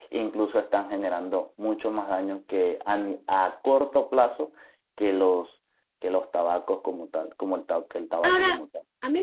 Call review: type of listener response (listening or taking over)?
taking over